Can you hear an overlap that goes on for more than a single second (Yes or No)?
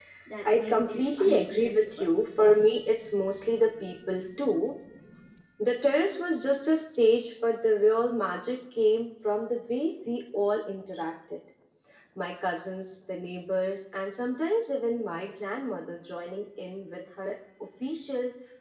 Yes